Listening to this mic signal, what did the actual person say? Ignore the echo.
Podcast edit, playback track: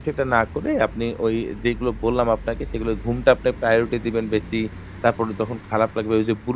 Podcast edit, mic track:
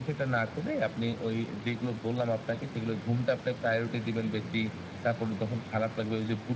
none

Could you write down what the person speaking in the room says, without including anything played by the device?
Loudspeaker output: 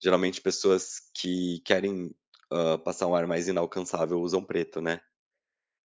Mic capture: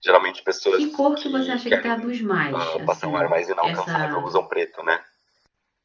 que cor que você acha que traduz mais, assim, essa

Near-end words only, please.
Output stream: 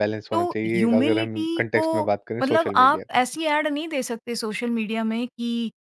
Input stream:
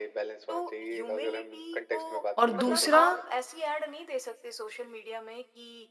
और दूसरा

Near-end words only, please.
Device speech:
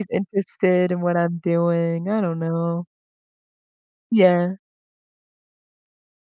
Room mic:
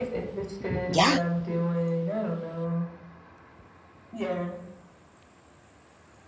yeah,

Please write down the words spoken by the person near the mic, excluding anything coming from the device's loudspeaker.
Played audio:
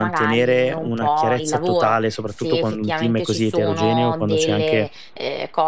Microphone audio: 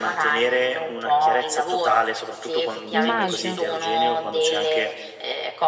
immagino.

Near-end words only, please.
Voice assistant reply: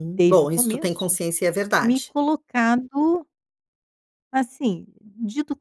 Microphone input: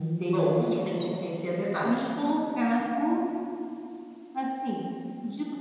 none

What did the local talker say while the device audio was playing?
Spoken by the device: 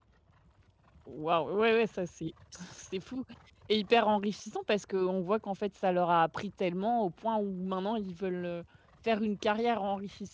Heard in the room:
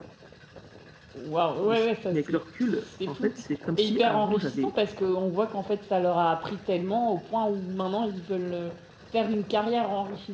Mais c mais avec le recul, en fait, c'est comme si avant j'avais

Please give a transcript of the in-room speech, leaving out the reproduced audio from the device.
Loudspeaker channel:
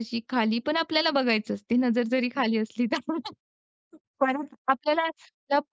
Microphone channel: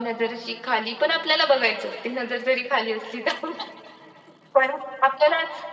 none

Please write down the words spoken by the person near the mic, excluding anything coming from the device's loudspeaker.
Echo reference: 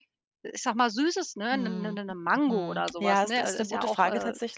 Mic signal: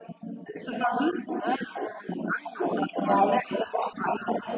none

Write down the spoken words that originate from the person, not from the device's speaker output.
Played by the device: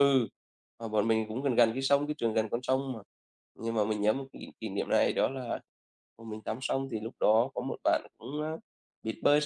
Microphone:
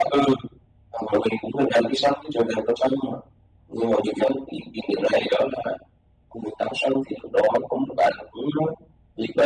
none

